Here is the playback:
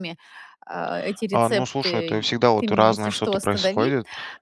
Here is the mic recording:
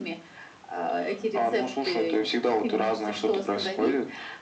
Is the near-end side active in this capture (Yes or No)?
No